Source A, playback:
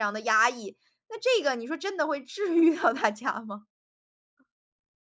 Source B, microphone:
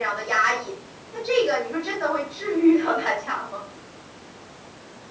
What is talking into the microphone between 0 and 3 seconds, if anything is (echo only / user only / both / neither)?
echo only